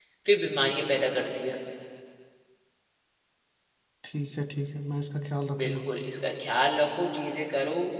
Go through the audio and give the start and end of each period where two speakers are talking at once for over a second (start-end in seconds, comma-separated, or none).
none